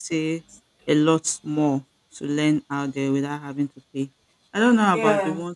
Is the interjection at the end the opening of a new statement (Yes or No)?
No